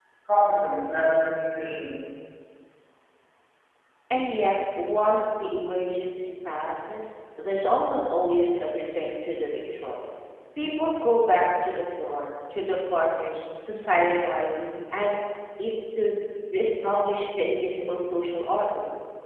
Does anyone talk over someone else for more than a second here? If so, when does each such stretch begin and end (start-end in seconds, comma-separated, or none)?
none